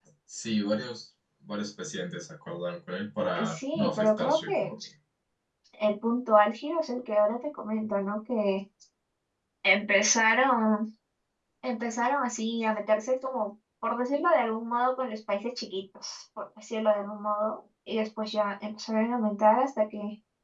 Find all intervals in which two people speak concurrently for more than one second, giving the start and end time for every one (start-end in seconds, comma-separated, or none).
3.4-4.7